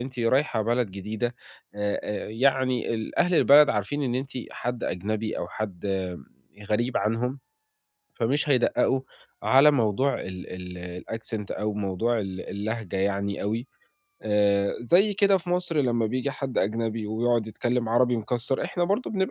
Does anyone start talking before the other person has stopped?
No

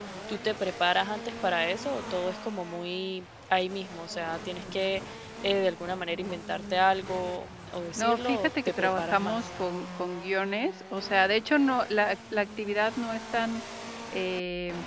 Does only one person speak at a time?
No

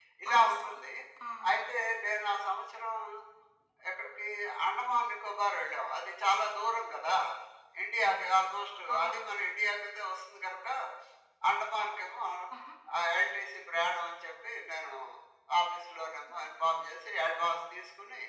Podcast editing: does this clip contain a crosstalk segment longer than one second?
No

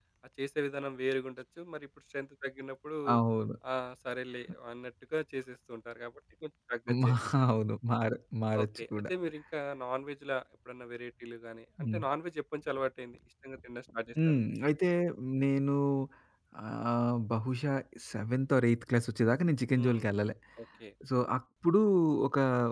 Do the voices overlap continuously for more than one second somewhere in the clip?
No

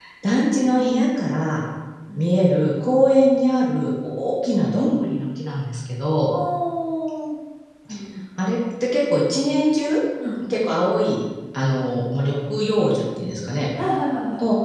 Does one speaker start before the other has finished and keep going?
No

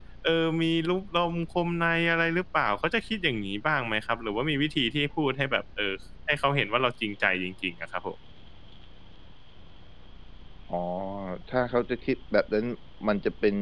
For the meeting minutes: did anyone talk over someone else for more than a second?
No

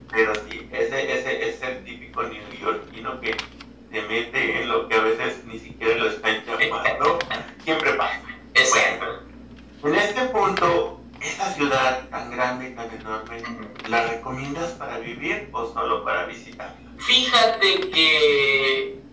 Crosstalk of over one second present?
No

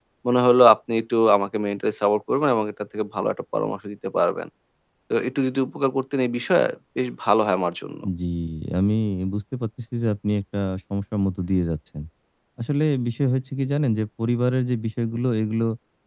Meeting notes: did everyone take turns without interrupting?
Yes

